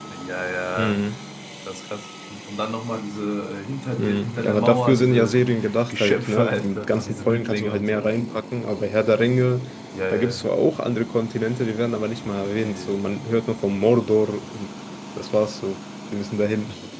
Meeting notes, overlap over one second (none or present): present